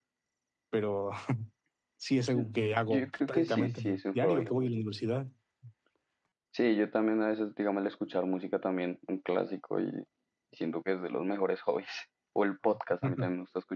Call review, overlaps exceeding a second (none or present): present